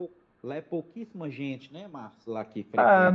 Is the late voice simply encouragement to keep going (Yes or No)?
No